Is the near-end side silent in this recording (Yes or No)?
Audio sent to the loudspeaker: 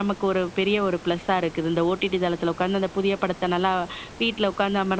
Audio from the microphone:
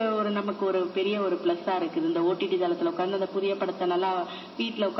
Yes